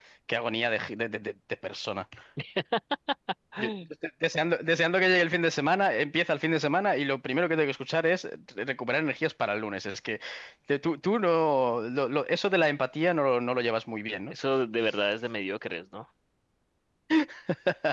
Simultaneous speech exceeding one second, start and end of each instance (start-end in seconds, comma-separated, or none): none